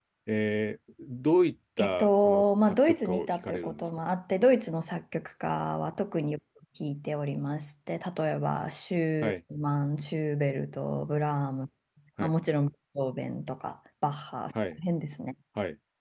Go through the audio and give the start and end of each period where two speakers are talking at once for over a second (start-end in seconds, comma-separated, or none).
1.8-3.8